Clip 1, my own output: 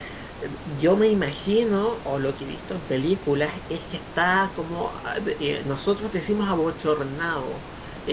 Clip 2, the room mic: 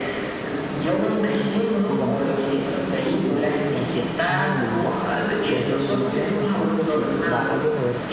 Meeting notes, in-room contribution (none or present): present